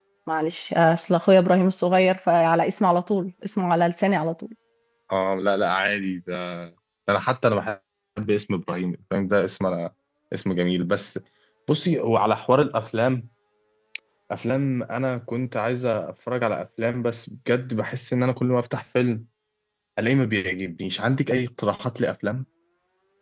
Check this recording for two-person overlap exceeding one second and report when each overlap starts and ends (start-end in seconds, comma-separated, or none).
none